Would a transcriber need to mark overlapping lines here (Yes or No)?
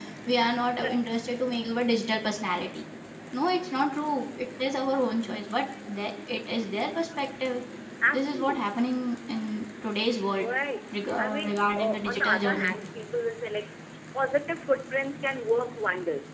Yes